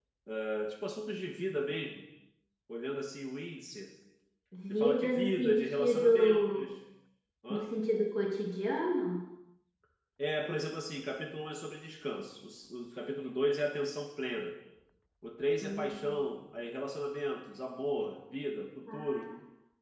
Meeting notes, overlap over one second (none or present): present